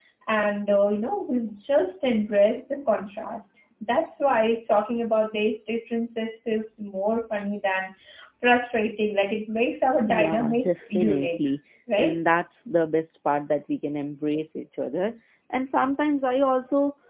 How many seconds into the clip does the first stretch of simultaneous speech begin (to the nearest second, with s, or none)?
10 s